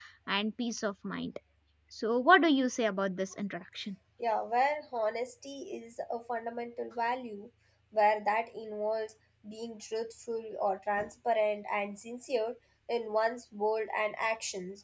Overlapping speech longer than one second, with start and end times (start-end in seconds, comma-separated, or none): none